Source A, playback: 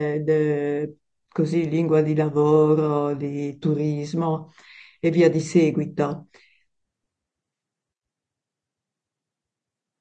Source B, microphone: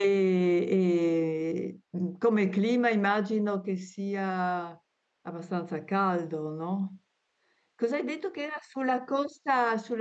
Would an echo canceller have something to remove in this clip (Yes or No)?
No